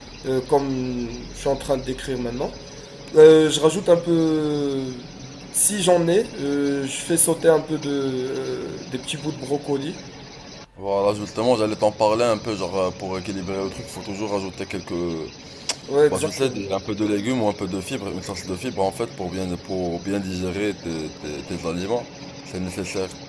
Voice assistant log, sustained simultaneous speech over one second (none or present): none